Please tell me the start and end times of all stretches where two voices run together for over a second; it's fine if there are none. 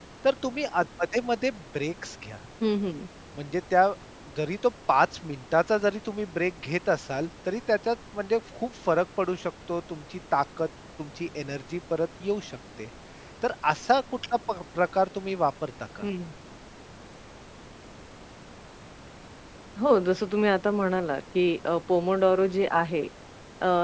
none

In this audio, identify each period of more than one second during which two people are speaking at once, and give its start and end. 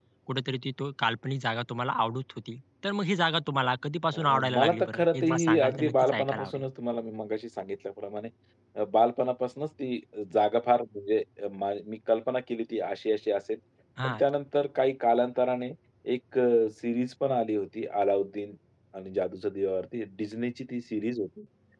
4.1-6.6

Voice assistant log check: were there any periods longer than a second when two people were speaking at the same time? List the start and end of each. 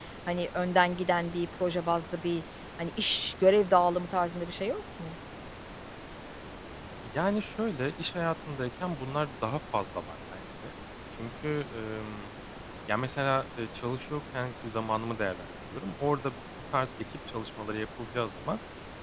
none

